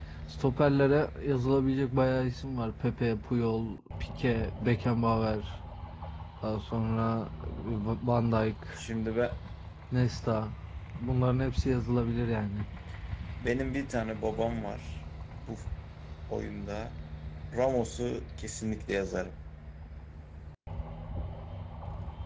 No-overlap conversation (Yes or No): Yes